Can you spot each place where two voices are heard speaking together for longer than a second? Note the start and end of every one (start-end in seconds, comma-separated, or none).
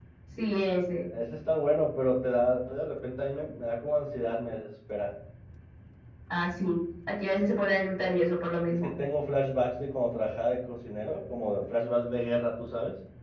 none